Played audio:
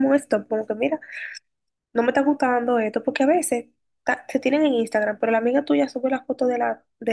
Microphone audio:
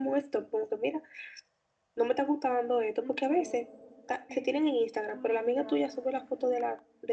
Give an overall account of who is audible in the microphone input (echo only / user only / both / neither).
both